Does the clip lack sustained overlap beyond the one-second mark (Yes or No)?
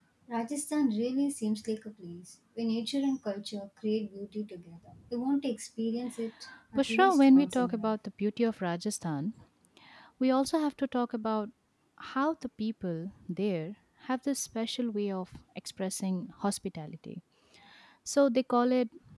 No